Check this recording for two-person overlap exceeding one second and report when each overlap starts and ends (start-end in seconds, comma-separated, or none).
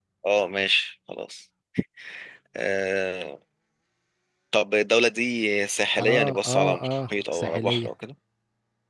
6.0-7.9